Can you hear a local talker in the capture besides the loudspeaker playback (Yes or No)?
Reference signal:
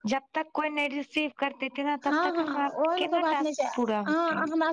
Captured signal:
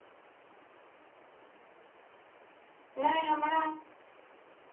Yes